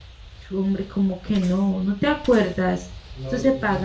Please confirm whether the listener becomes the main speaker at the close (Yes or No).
No